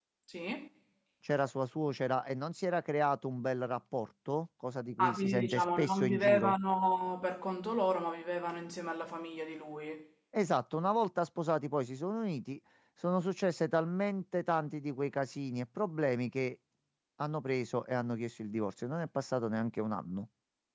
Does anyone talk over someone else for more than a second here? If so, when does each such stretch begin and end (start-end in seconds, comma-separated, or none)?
5.0-6.5